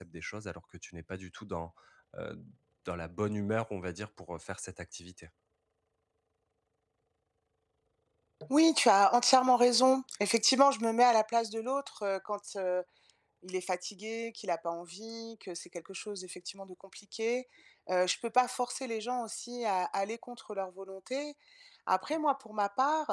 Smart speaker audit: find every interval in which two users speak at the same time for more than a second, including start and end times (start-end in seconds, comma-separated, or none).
none